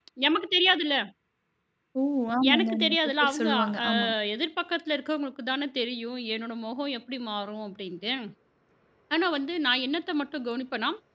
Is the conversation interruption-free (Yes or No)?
No